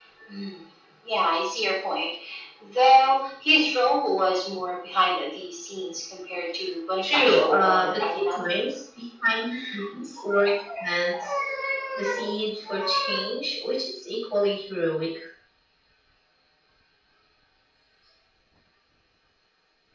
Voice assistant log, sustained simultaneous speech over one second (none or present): present